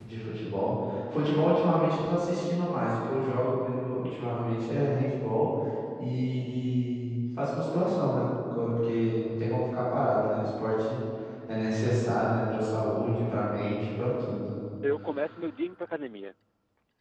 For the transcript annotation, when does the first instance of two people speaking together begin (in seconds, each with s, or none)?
none